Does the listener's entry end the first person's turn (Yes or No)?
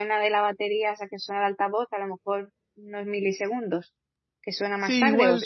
Yes